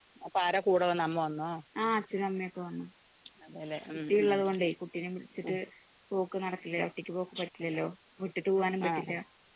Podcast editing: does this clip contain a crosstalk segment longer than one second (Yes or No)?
No